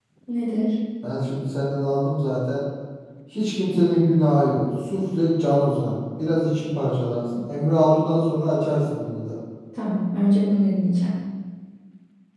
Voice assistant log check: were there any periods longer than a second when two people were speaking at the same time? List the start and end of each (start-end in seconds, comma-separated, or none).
none